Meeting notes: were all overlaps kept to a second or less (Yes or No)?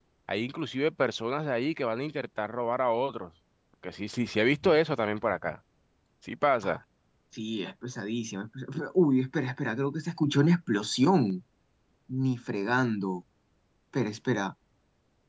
Yes